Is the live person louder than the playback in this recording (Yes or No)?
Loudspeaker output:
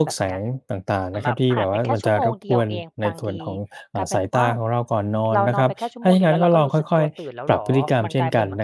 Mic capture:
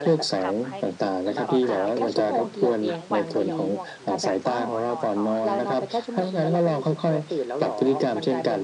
No